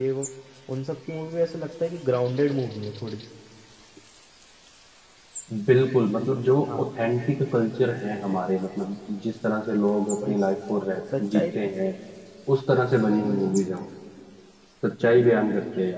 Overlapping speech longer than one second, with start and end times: none

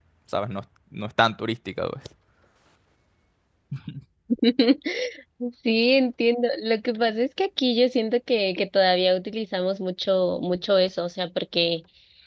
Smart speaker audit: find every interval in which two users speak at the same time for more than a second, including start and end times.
none

